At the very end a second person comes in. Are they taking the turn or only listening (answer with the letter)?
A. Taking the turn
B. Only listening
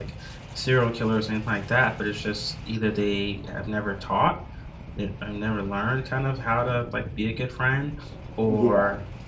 B